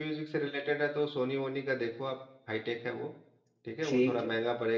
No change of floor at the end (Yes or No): Yes